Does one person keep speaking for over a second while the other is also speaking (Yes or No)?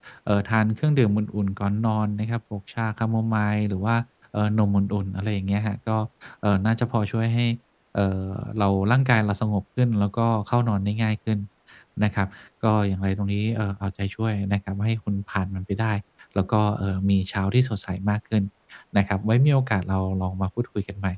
No